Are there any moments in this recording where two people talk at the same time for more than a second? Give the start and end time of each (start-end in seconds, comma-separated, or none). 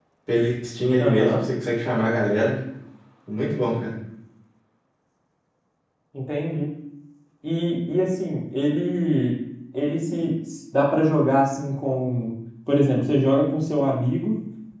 none